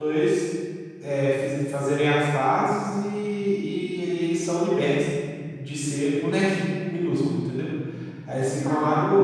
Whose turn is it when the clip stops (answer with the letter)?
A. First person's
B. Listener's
A